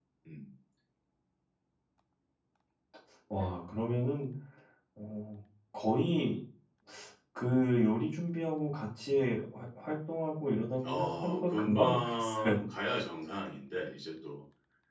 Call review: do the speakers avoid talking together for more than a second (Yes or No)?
No